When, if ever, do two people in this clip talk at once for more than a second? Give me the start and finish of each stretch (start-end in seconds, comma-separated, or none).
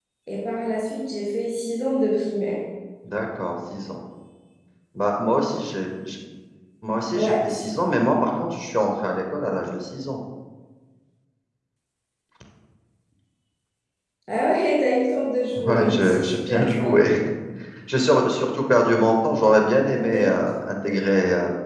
15.6-17.0